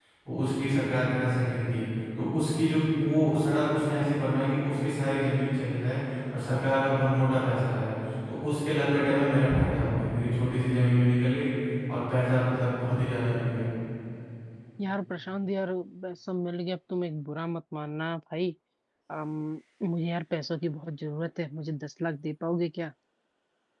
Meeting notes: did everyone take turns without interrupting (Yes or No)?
Yes